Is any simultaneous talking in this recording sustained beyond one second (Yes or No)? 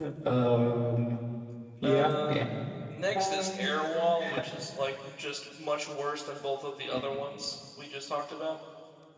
No